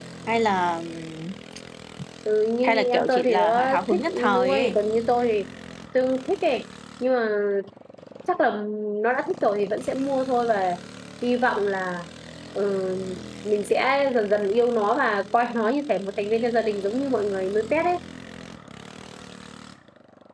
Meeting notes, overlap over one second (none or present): present